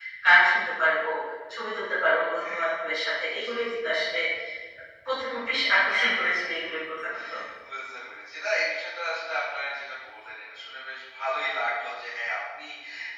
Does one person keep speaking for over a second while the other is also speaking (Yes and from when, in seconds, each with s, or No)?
No